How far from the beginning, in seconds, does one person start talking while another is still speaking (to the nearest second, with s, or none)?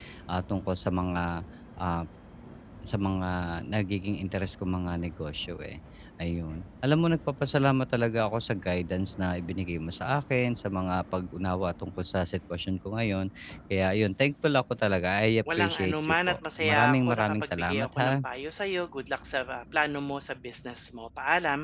15 s